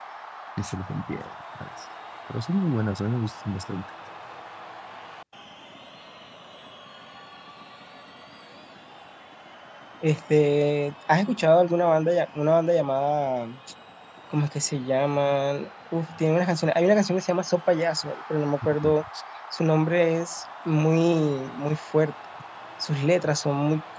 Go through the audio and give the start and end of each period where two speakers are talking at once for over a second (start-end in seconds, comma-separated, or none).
none